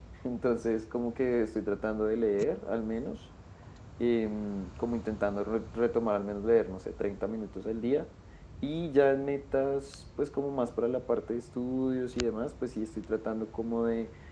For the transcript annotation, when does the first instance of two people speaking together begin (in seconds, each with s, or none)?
none